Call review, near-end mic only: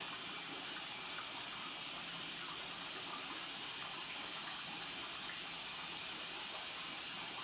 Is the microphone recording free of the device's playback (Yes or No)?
Yes